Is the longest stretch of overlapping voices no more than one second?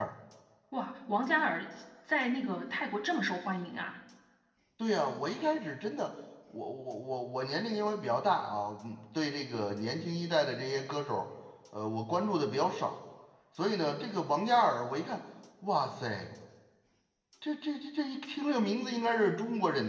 Yes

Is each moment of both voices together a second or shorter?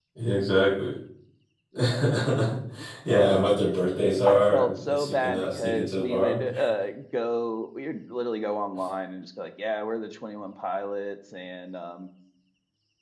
No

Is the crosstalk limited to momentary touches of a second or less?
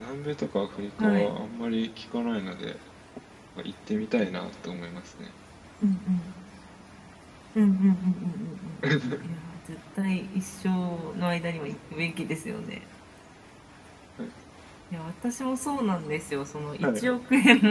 Yes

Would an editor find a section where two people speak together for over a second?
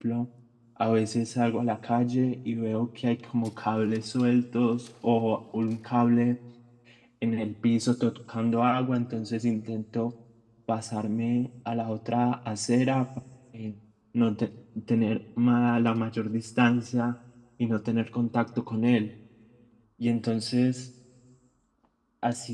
No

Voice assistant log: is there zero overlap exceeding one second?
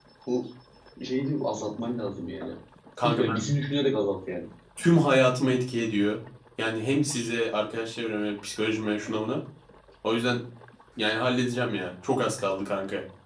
Yes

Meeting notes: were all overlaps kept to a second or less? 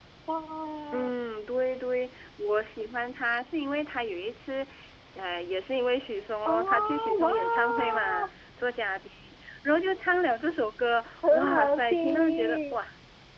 No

